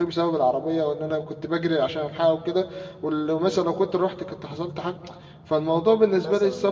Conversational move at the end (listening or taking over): listening